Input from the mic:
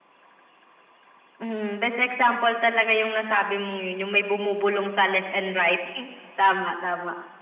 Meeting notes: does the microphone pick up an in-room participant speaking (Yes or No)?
No